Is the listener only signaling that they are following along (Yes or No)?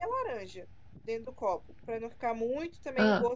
Yes